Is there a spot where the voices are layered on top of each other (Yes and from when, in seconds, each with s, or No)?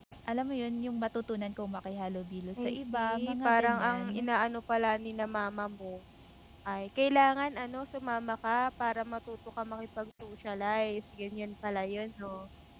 Yes, from 2.6 s